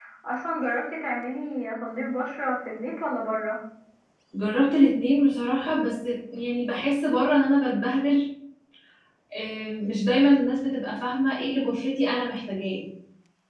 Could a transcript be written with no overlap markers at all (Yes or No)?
Yes